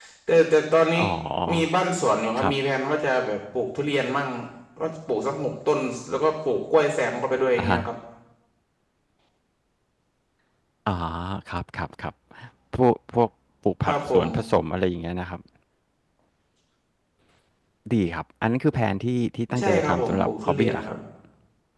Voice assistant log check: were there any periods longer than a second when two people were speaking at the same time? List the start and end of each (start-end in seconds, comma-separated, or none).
19.6-20.9